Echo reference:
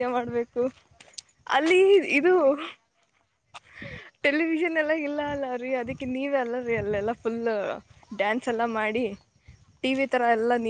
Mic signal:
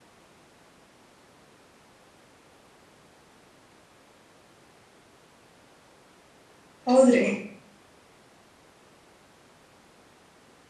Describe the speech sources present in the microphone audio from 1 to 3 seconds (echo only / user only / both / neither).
neither